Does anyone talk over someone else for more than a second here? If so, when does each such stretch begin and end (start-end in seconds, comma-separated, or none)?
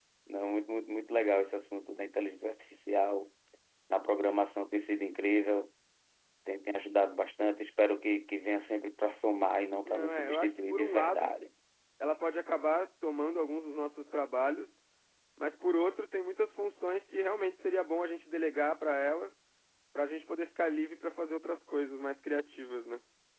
9.8-11.3